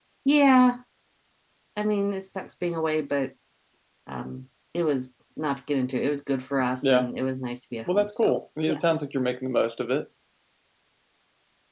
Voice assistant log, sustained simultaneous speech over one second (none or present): none